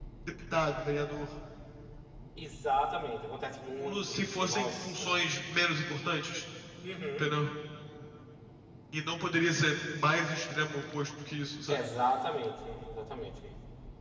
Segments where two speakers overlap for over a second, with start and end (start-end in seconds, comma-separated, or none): 3.8-5.2